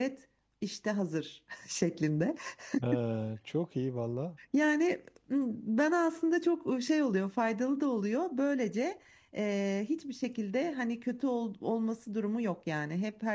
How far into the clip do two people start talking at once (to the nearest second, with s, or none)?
none